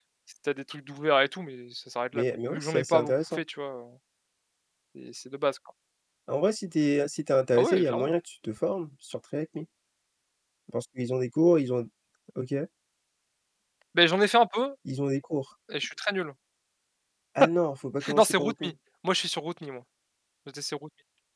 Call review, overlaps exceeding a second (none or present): present